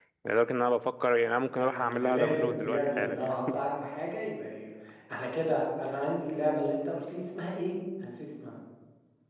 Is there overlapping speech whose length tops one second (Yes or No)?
Yes